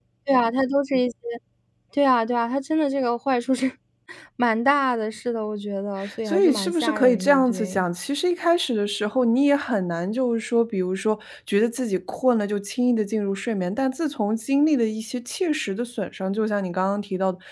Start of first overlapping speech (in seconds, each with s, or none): 6.2 s